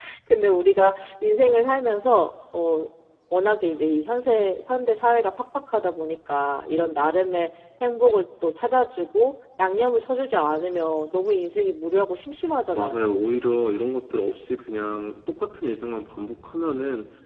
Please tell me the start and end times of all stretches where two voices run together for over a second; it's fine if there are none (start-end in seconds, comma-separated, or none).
none